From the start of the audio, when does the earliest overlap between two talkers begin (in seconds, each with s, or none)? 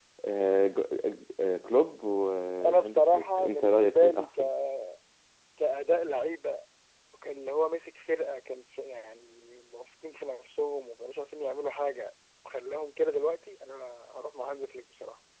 2.6 s